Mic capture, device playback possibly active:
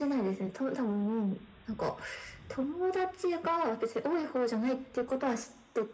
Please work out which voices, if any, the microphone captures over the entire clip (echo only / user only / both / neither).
echo only